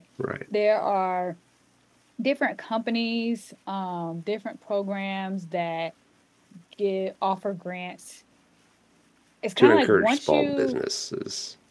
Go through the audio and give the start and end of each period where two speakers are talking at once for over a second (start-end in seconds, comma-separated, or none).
9.6-10.8